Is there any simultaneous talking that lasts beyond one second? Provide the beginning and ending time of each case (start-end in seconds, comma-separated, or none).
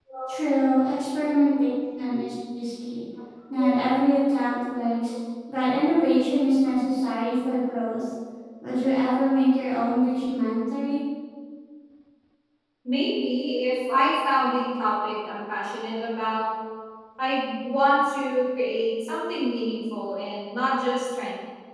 none